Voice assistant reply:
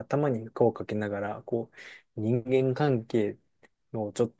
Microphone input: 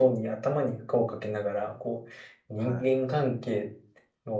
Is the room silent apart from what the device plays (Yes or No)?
No